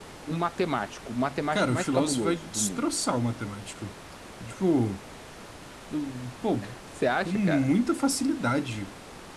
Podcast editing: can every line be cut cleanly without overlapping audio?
No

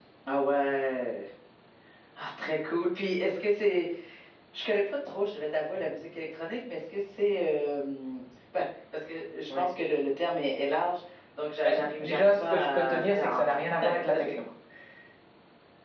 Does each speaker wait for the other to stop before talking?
No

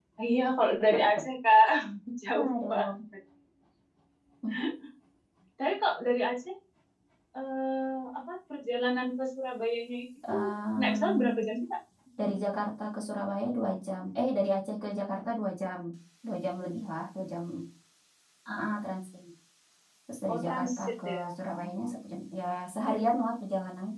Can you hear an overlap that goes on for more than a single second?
Yes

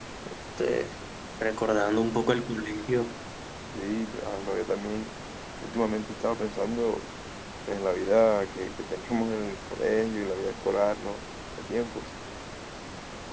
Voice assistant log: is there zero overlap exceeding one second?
Yes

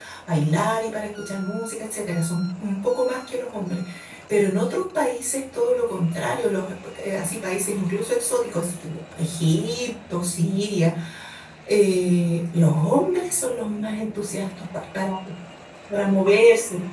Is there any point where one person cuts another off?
No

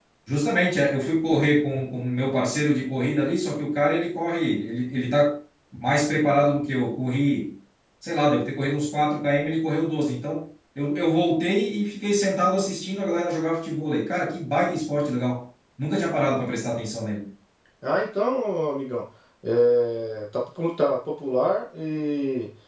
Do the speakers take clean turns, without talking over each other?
Yes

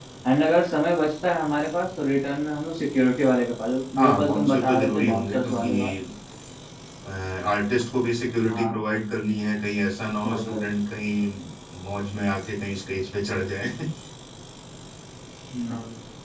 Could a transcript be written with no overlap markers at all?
No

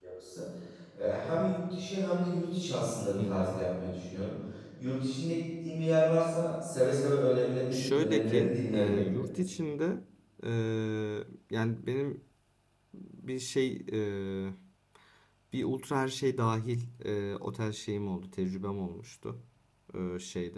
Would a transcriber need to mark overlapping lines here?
Yes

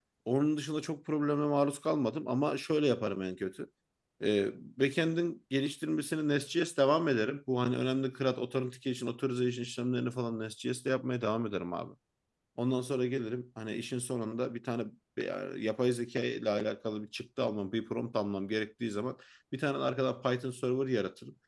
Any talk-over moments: No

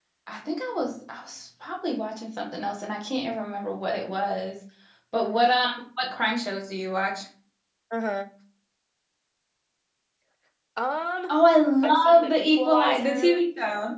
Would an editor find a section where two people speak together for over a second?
Yes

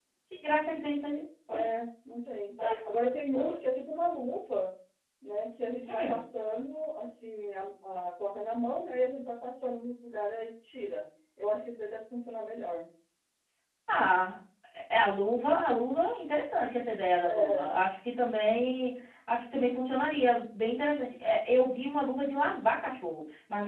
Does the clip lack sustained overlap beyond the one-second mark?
Yes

